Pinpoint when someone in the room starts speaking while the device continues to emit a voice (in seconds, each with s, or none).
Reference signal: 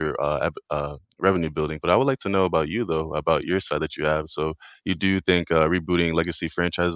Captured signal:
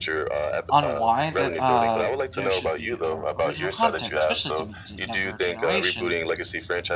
0.7 s